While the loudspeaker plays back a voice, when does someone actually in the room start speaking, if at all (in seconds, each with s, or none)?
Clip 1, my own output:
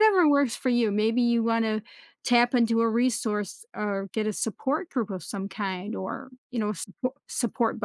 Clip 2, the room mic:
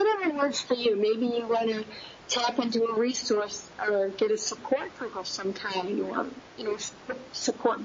none